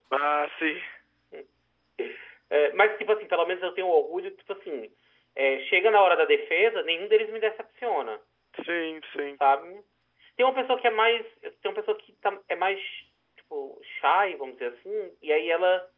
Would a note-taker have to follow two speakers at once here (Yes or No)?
No